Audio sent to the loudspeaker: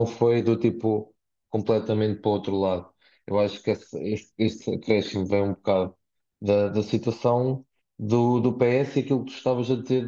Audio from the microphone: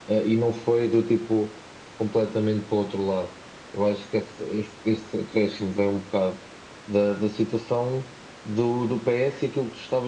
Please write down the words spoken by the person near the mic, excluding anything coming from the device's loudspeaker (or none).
none